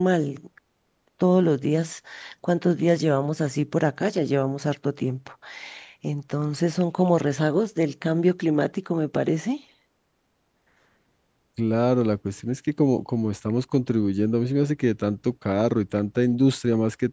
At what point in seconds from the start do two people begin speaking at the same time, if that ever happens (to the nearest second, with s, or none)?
none